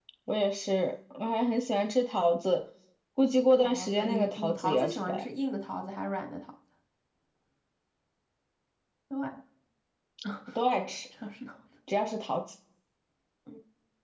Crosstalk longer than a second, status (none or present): present